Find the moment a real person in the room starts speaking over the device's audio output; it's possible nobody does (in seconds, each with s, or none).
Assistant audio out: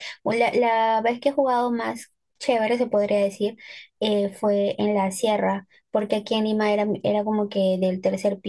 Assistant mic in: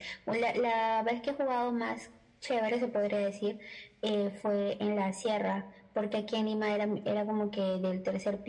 none